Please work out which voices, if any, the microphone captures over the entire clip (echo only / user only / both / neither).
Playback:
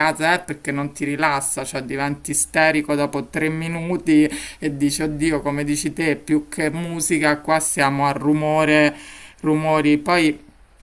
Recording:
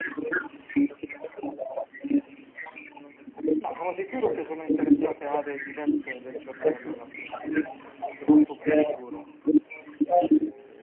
both